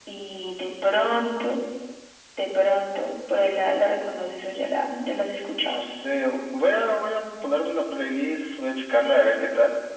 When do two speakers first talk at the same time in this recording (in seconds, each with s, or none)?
none